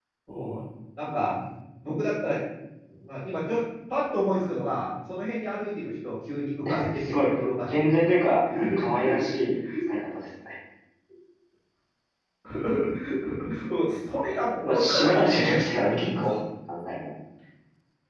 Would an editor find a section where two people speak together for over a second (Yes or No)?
Yes